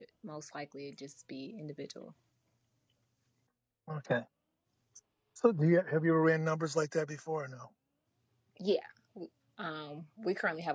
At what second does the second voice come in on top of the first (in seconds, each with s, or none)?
none